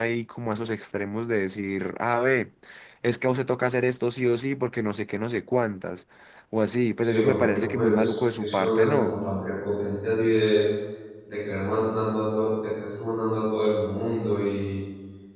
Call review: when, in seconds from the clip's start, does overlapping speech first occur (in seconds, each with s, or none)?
7.0 s